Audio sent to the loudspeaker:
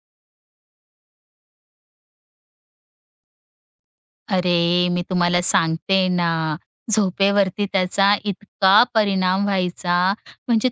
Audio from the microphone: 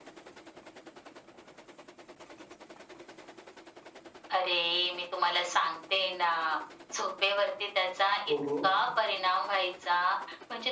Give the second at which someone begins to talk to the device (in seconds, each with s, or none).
8.3 s